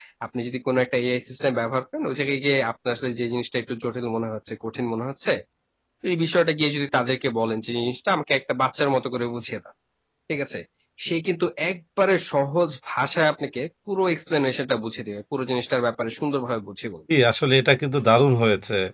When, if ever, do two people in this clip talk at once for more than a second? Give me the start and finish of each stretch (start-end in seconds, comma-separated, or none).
none